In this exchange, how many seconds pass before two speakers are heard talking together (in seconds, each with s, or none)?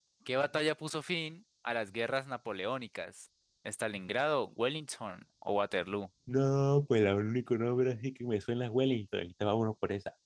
none